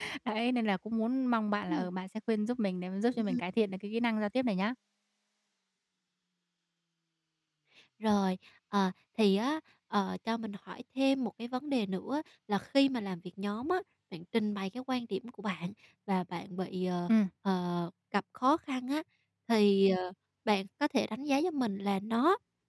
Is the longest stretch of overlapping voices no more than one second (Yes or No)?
Yes